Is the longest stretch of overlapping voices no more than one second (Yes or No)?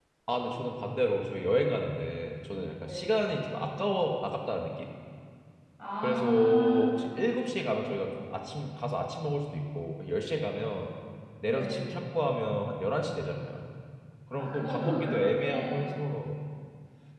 No